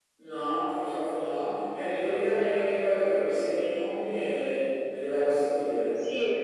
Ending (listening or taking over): taking over